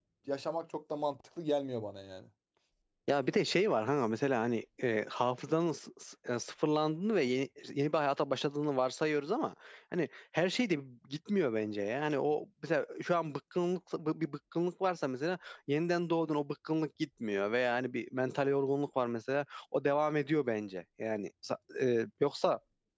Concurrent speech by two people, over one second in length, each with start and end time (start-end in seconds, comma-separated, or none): none